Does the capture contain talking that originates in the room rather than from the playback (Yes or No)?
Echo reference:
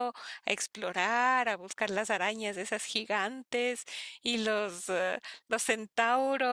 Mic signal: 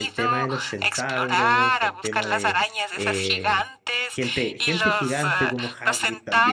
Yes